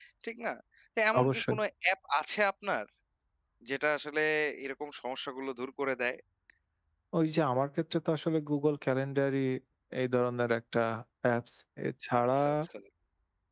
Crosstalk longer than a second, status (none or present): none